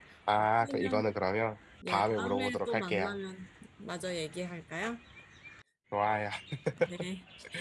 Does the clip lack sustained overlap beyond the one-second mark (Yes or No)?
No